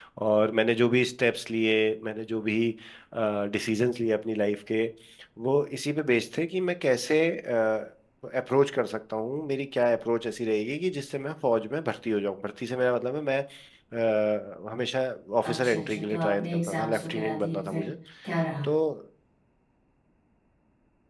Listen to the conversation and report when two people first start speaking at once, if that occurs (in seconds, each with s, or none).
15.5 s